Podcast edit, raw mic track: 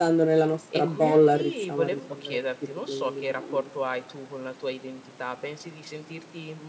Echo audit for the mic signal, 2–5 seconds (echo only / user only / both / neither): both